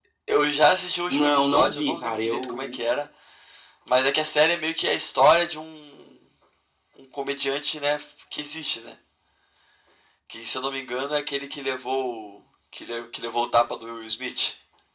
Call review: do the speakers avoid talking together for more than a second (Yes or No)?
No